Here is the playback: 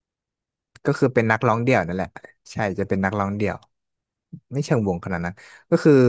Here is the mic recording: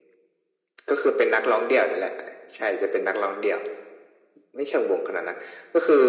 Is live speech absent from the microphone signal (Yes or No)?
Yes